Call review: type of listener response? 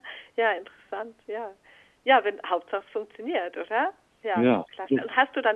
listening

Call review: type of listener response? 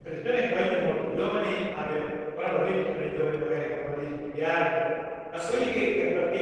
listening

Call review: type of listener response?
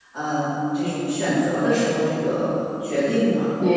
taking over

